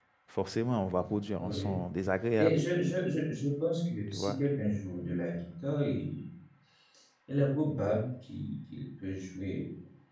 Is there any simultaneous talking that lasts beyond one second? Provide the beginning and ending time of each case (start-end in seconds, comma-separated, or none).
none